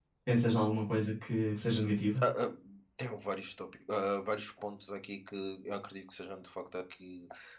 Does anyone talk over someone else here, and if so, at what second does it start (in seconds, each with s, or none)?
none